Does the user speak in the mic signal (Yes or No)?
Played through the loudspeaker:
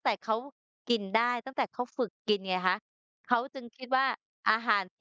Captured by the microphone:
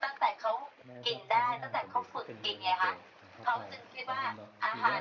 Yes